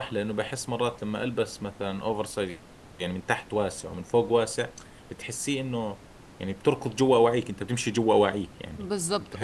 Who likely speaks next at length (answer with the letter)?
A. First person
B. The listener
B